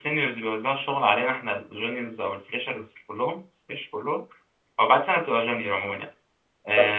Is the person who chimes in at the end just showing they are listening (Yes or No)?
Yes